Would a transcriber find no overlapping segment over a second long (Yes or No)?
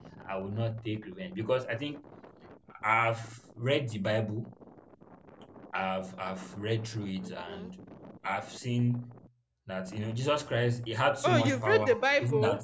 No